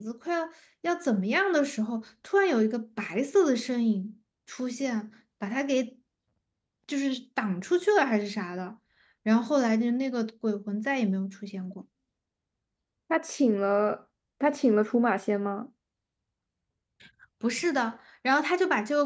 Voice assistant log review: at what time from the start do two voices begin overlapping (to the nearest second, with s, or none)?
none